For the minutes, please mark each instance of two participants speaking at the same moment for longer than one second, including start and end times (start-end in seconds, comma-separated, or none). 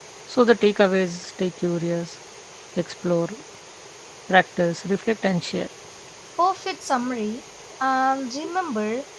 none